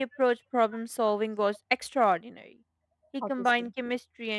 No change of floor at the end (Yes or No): Yes